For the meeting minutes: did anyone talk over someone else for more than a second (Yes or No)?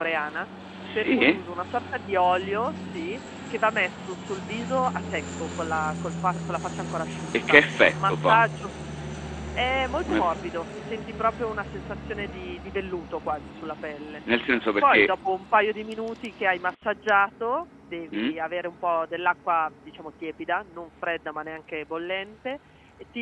No